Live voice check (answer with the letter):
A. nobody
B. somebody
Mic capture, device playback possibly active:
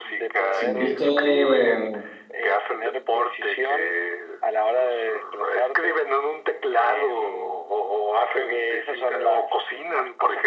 B